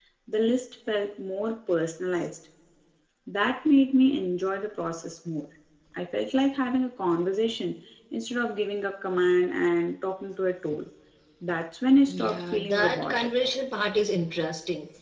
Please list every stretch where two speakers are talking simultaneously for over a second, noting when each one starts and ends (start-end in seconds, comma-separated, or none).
12.1-13.3